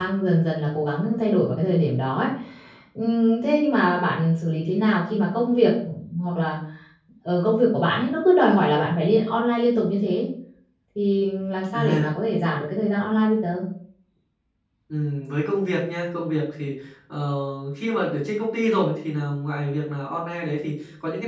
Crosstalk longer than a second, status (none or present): none